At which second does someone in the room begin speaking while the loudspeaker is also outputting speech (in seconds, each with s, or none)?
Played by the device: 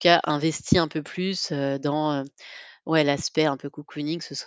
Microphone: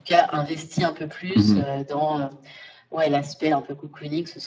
1.3 s